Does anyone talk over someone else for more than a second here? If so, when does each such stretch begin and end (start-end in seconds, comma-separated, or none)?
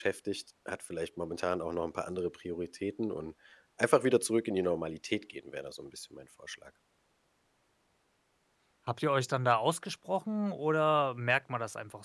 none